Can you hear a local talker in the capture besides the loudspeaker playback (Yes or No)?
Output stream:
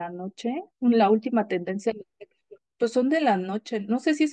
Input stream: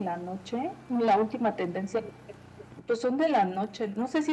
No